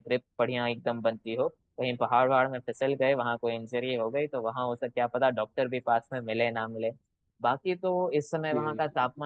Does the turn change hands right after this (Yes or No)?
No